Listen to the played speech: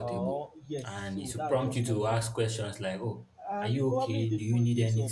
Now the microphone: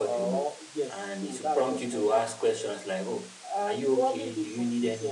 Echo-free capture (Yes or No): No